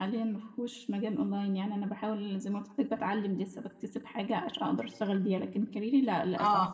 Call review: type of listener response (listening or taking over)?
listening